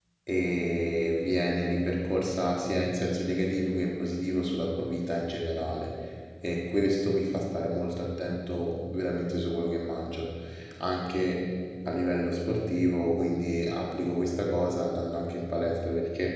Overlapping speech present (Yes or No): No